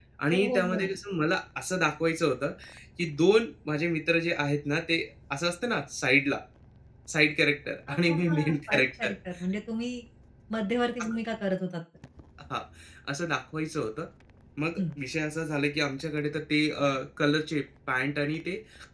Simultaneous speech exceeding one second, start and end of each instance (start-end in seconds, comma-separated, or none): 7.9-9.1